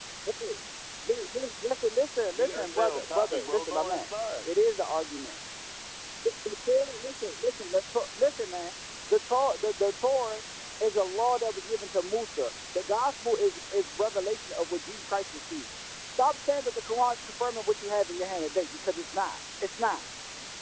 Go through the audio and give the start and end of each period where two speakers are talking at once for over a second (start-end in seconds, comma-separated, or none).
2.4-4.0